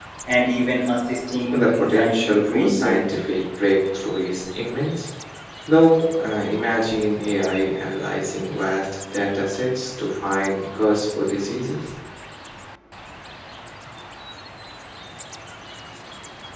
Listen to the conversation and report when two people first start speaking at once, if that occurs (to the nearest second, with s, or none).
2 s